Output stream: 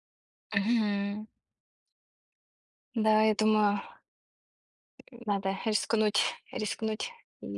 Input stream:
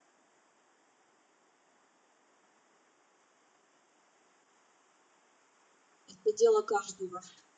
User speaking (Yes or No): Yes